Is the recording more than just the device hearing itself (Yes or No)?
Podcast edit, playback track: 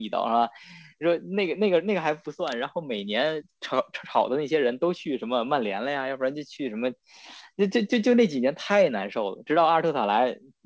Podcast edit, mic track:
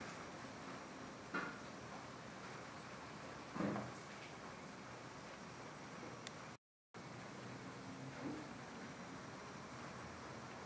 No